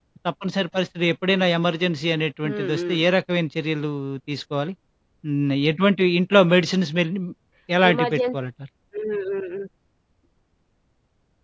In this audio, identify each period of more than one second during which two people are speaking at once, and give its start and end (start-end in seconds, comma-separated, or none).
none